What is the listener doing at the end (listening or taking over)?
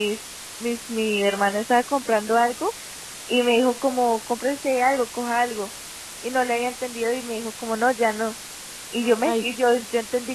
listening